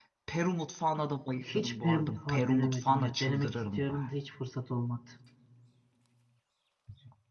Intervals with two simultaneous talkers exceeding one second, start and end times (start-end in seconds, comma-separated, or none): 1.5-3.9